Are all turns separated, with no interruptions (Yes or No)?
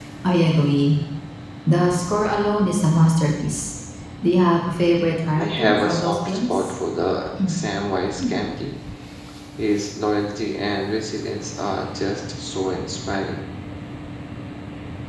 No